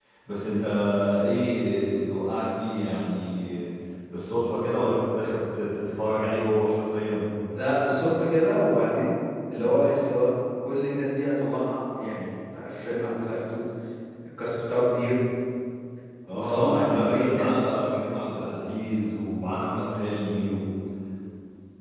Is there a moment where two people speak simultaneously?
Yes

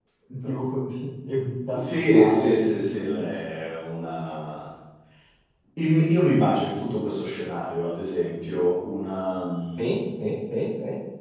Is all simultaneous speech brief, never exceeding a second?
No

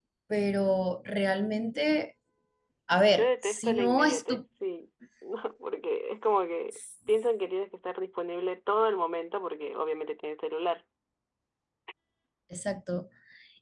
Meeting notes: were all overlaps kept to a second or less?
No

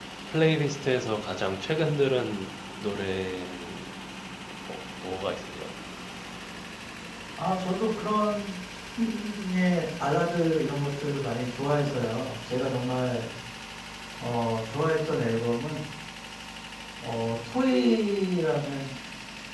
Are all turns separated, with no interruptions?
Yes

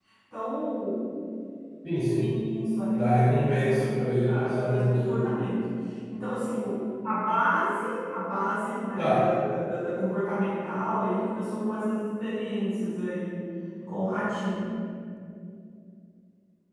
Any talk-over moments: Yes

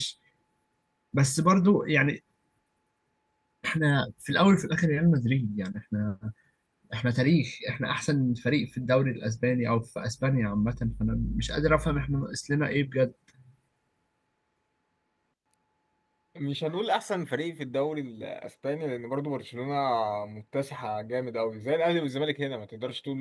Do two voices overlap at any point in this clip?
No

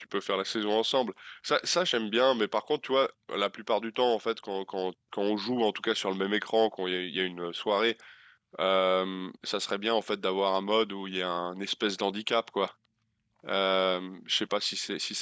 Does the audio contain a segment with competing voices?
No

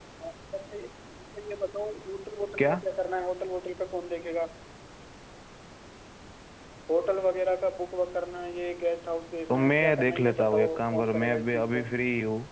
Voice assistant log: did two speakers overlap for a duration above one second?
Yes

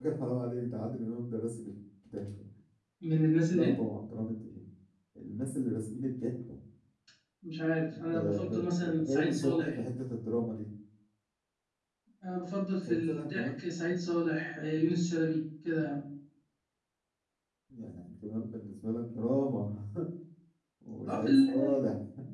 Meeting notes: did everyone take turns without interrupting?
No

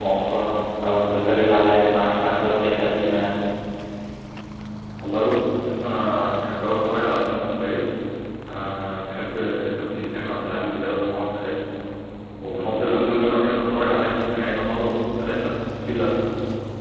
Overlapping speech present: No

